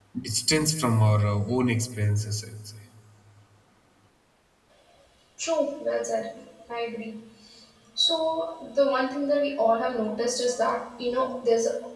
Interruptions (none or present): none